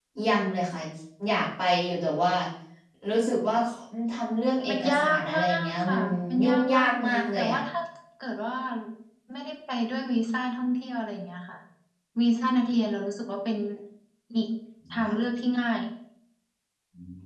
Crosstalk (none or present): present